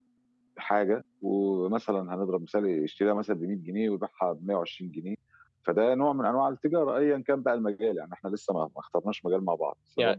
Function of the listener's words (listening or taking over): taking over